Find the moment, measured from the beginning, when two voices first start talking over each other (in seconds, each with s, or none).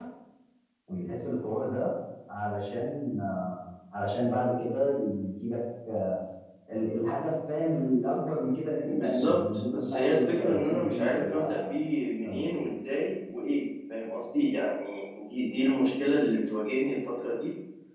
8.8 s